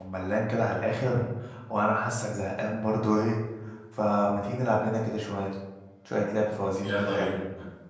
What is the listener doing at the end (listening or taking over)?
taking over